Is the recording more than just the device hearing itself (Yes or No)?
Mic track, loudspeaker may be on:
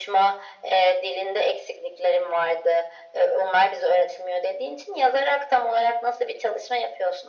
No